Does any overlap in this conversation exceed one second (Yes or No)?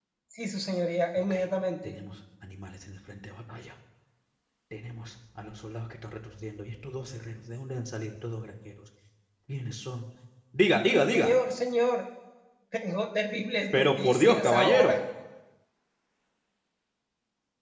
Yes